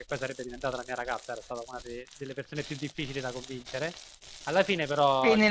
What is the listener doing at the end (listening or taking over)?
taking over